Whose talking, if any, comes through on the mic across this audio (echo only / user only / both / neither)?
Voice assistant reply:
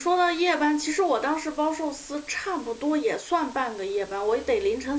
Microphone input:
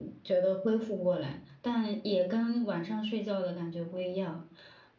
user only